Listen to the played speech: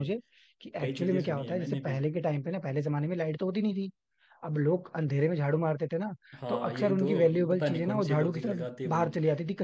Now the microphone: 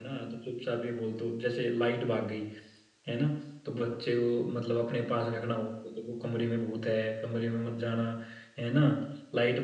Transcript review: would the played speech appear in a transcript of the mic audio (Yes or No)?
No